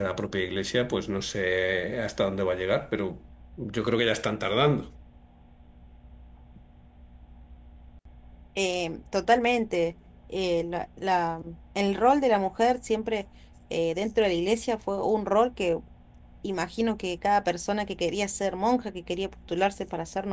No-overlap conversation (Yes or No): Yes